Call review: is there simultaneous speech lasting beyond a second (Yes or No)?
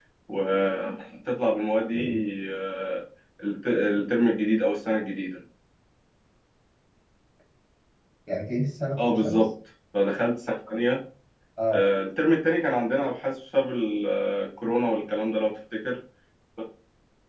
No